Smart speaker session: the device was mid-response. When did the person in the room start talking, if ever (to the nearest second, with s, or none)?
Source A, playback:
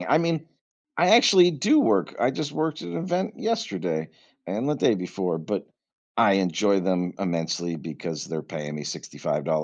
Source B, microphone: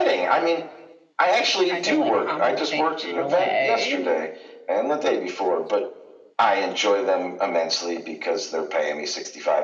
2 s